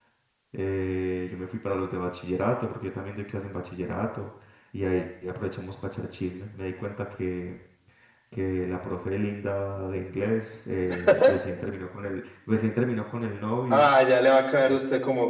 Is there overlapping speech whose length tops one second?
No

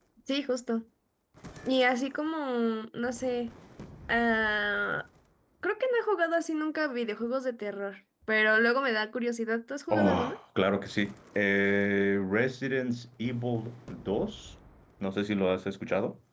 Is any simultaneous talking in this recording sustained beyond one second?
No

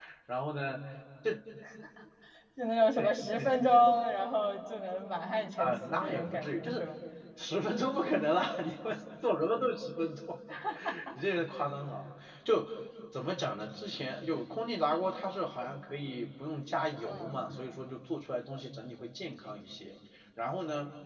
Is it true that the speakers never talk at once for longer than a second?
No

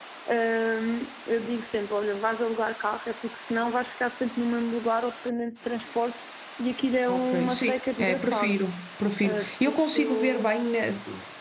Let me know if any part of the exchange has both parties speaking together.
Yes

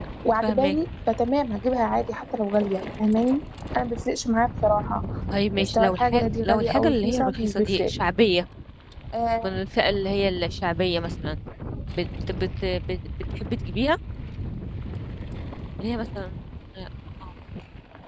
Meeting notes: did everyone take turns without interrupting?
No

